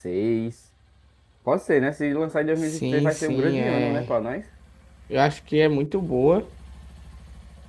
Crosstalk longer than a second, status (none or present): present